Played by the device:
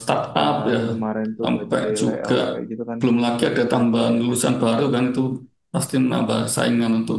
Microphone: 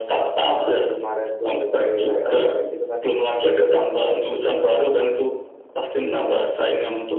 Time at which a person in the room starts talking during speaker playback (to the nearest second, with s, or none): 6 s